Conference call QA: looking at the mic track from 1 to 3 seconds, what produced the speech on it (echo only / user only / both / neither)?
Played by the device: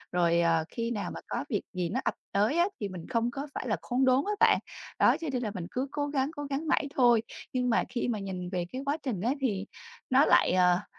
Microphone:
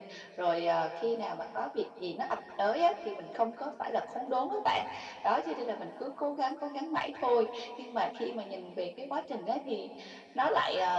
echo only